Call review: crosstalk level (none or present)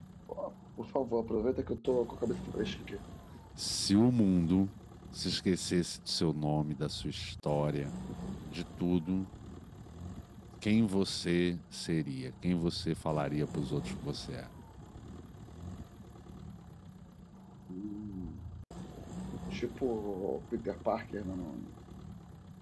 none